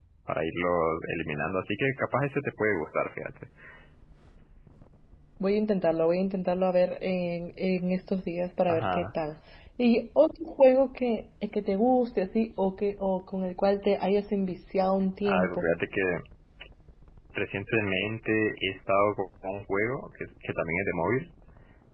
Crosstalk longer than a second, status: none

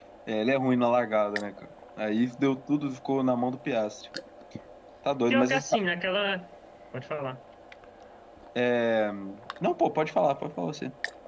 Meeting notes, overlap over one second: none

